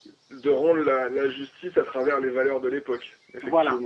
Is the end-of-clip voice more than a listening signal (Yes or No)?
Yes